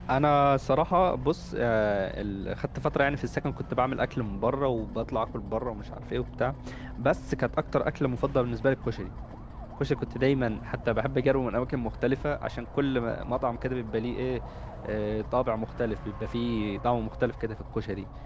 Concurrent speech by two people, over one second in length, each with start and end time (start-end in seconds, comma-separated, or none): none